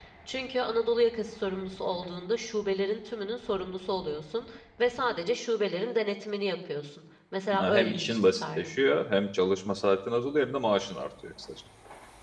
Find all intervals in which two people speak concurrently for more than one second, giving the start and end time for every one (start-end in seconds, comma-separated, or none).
7.6-8.8